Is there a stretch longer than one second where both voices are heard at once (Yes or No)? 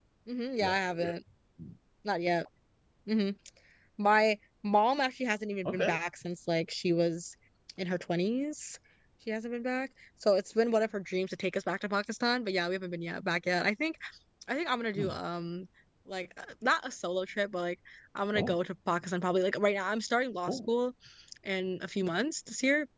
No